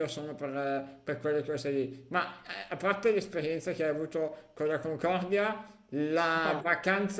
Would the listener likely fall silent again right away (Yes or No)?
Yes